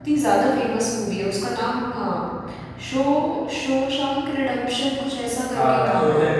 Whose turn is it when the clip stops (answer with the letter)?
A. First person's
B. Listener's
B